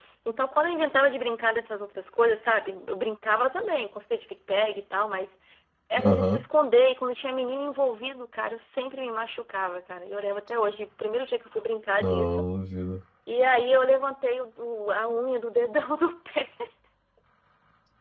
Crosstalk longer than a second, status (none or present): none